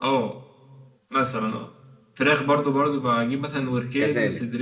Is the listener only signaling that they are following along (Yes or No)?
Yes